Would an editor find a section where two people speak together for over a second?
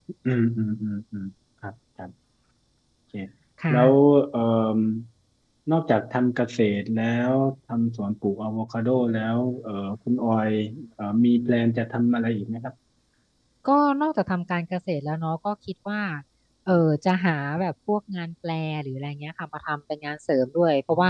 No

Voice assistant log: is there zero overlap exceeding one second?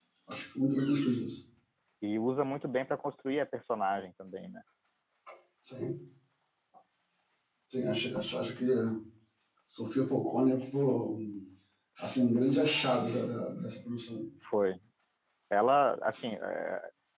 Yes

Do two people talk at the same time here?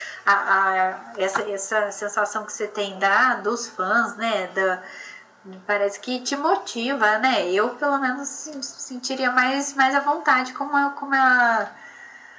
No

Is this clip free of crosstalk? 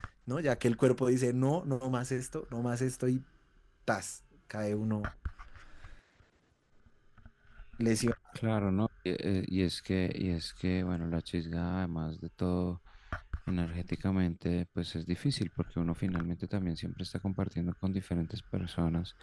Yes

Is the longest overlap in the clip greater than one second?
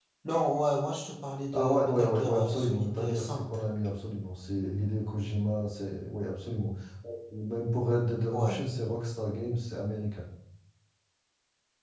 Yes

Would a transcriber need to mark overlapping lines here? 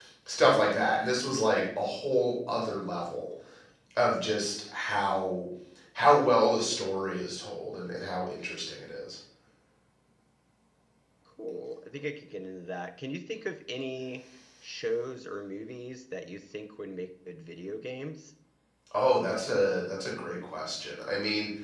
No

